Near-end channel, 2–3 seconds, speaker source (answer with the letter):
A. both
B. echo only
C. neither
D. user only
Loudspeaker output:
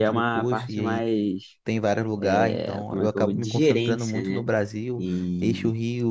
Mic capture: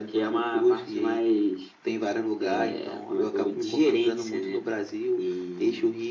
B